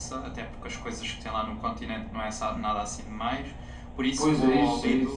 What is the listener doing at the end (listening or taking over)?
taking over